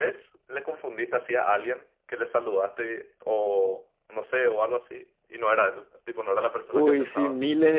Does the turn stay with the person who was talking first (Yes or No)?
No